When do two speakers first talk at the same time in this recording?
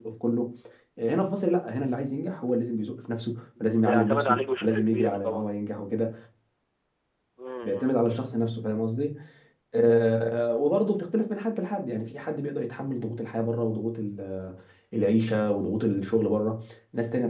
3.6 s

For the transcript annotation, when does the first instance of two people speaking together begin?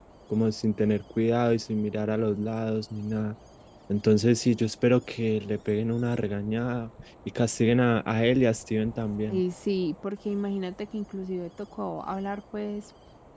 none

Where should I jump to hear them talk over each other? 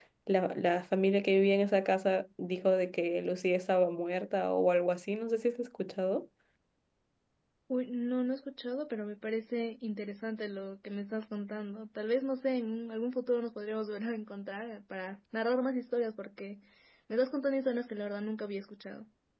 none

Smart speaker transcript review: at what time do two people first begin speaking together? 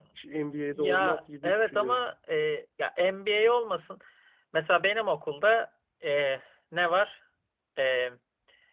0.7 s

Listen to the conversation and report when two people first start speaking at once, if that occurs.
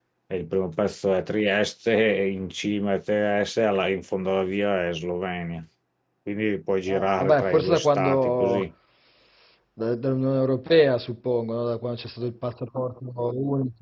6.9 s

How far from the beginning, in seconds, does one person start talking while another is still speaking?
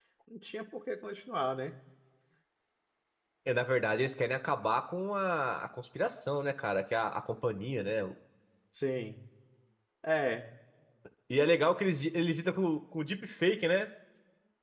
none

